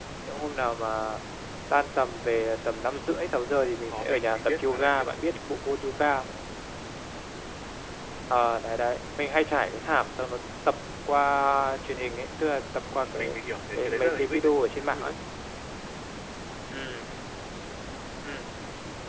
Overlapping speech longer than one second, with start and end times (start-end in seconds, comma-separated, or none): 3.9-5.1, 13.8-15.1